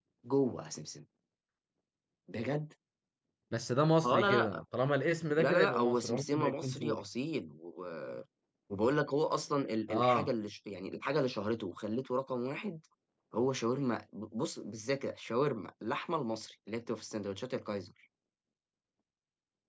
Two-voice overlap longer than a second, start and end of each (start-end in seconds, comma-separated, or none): 5.4-7.0